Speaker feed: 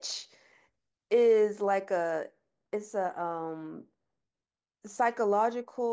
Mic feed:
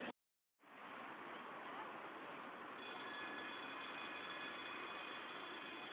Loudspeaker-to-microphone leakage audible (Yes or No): No